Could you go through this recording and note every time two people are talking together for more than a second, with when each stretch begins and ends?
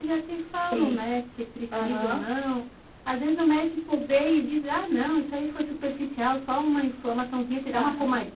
none

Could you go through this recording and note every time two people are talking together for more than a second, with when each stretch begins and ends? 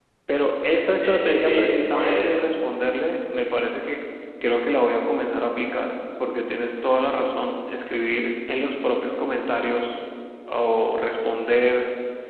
1.0-2.5

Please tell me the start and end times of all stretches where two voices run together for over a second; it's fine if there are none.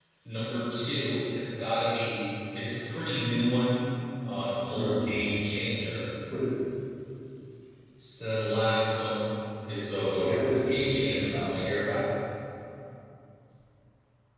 10.2-11.5

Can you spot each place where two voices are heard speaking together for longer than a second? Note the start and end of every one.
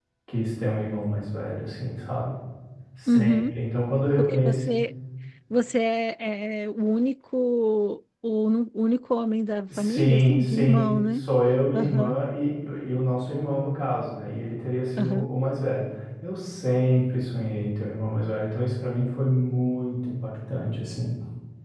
9.8-11.2

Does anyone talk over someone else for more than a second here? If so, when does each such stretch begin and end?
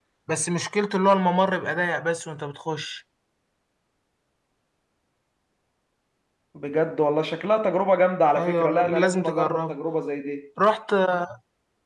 8.4-9.8

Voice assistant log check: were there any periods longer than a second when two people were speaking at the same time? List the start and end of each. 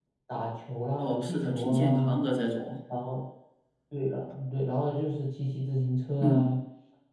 1.0-2.2

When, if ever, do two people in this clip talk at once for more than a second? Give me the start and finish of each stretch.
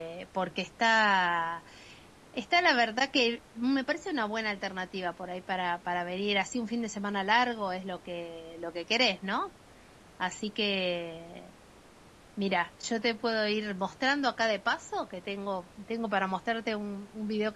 none

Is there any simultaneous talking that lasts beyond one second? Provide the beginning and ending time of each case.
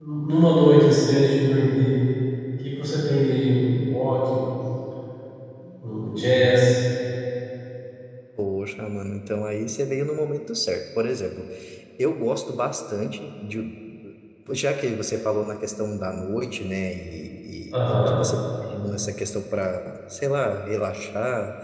none

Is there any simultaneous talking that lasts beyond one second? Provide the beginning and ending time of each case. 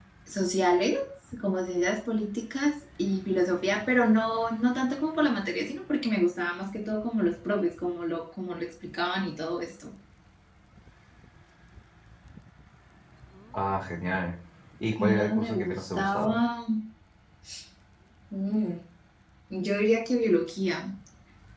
15.0-16.4

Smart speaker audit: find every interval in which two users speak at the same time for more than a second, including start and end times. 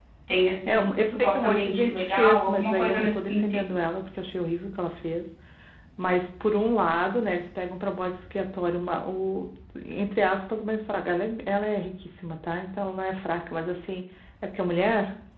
0.7-3.7

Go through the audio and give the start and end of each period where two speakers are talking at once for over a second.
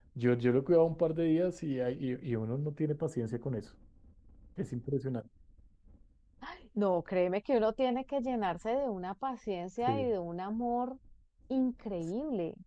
none

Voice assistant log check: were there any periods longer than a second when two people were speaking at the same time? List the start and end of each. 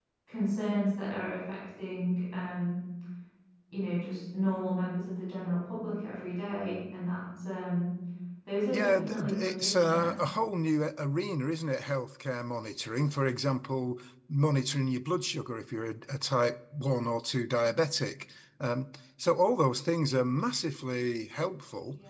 8.7-10.1

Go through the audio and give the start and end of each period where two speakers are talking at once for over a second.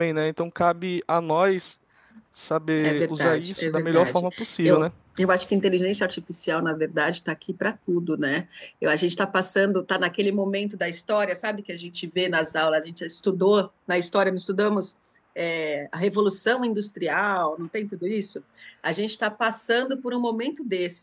2.8-4.2

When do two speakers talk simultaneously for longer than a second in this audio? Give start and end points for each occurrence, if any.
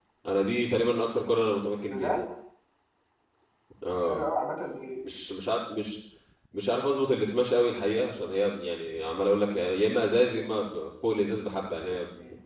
none

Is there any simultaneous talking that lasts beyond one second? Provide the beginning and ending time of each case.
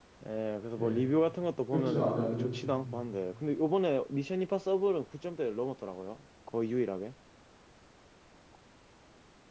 1.7-3.0

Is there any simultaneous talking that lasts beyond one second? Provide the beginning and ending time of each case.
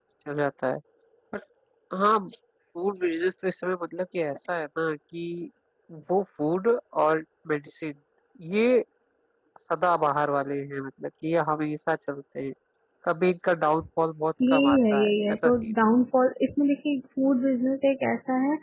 14.5-15.7

